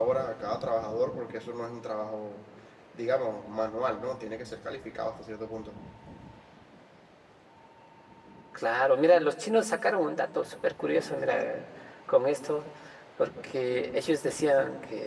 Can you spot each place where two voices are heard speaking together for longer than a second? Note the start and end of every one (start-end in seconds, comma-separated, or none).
none